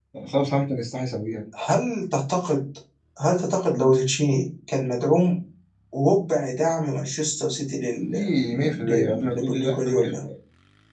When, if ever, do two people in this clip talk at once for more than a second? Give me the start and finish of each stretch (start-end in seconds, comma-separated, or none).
8.5-10.3